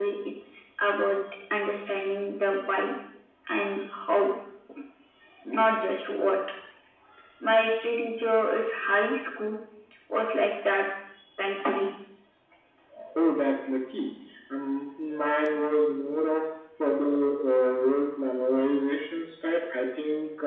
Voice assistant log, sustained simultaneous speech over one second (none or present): none